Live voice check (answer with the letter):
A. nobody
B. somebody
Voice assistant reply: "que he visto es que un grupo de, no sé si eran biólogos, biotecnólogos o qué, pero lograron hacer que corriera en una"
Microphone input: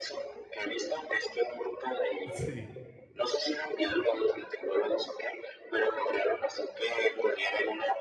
B